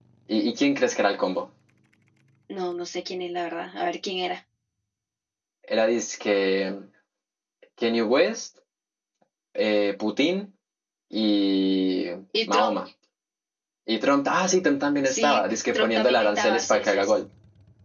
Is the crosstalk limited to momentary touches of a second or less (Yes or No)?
No